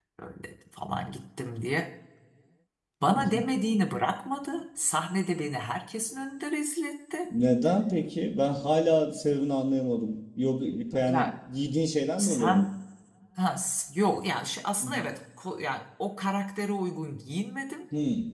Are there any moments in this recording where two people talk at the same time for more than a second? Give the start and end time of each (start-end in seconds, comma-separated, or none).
none